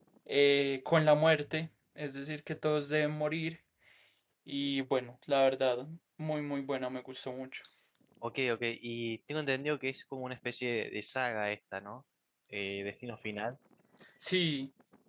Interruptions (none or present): none